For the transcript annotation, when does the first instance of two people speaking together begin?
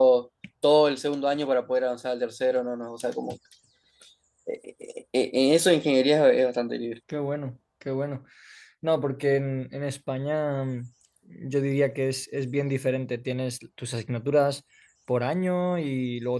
none

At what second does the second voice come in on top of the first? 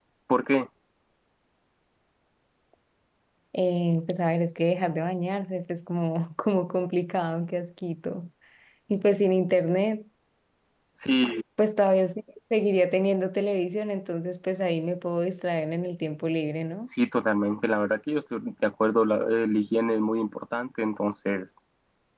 none

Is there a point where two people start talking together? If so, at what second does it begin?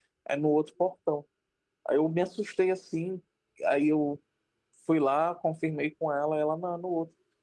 none

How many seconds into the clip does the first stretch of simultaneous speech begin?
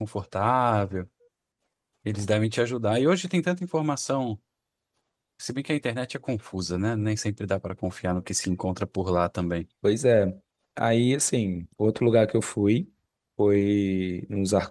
none

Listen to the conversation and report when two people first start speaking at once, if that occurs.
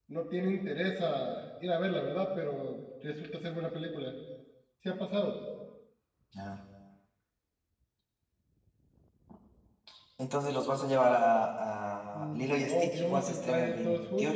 12.1 s

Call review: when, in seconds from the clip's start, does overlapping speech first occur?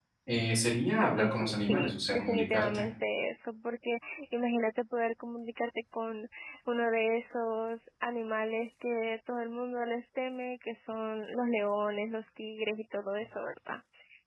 1.0 s

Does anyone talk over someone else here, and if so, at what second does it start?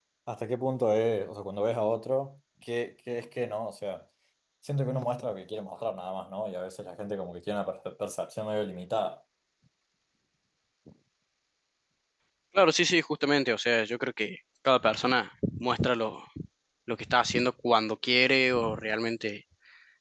none

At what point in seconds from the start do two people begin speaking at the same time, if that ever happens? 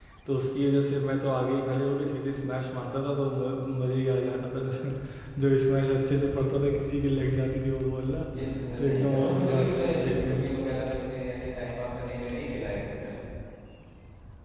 8.8 s

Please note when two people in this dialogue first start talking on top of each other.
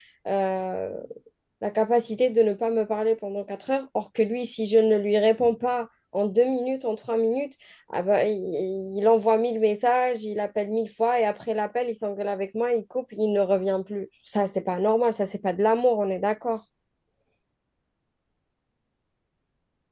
none

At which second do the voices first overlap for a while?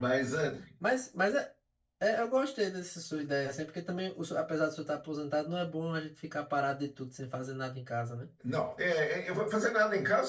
none

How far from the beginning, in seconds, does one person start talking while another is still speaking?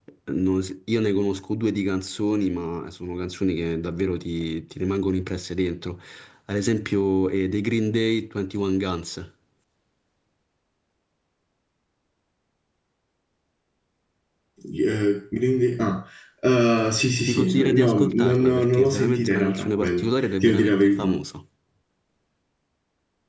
17.3 s

